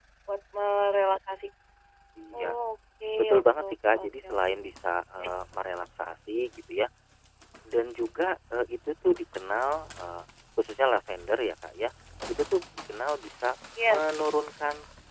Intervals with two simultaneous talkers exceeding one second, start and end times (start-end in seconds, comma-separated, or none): 3.2-4.4